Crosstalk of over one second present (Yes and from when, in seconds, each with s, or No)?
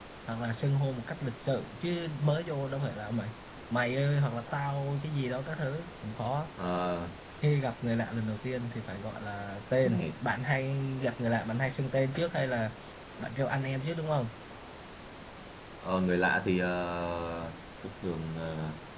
No